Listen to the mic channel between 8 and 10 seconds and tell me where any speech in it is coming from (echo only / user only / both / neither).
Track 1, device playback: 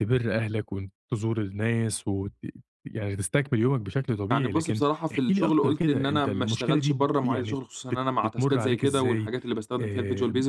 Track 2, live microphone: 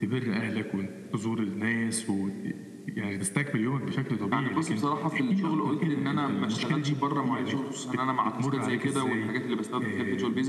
echo only